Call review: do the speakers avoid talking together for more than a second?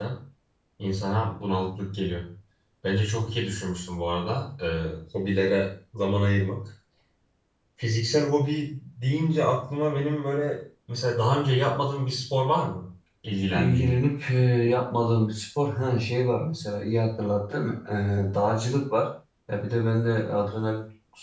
Yes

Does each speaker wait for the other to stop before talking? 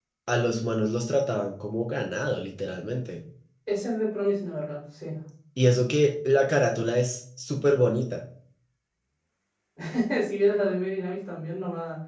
Yes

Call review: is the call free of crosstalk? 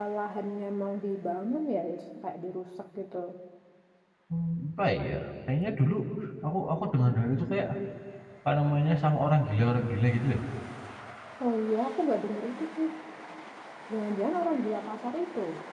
Yes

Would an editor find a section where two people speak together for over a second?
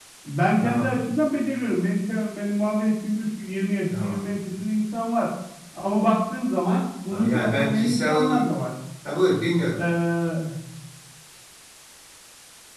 Yes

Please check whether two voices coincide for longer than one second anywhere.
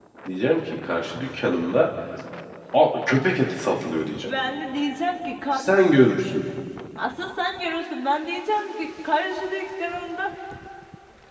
No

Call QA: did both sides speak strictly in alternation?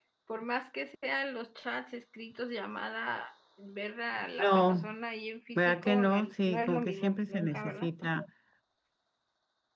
No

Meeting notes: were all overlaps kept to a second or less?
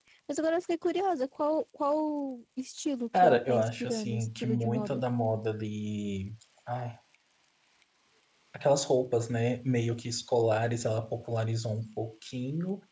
No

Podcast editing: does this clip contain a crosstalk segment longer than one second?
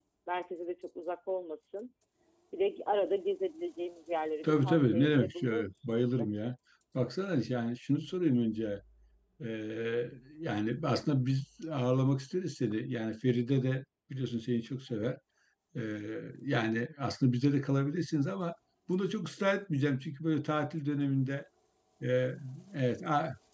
Yes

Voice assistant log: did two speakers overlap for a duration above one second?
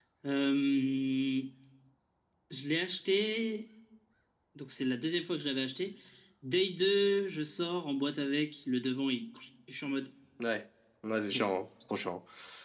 No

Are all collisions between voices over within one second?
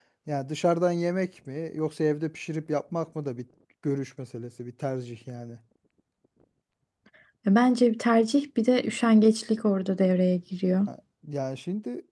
Yes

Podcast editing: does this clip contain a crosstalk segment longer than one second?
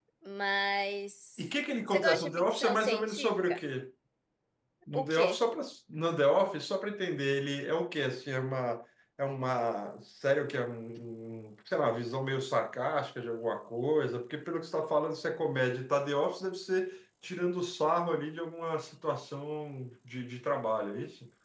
Yes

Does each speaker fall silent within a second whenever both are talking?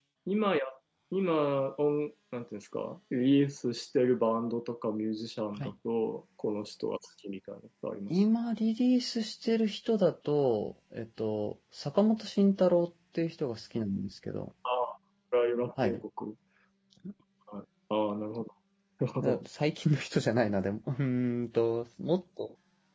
Yes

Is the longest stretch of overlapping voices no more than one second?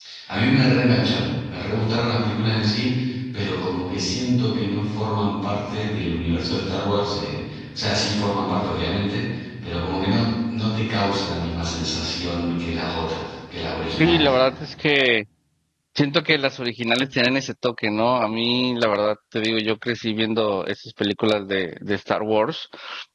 Yes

